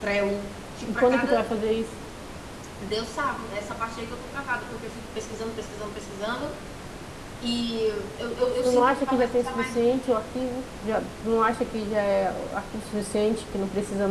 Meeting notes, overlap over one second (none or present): present